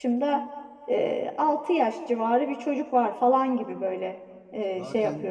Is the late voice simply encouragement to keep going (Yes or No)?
No